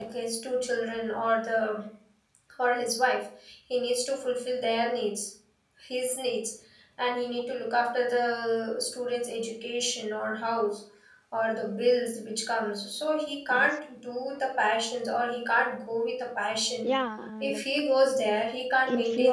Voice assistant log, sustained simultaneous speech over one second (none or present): none